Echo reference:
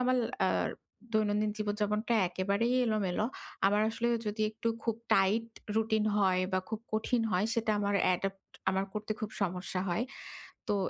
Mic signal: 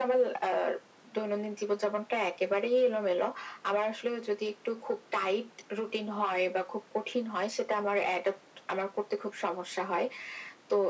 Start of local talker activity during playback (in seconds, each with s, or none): none